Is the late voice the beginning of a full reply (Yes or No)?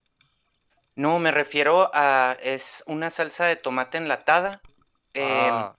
No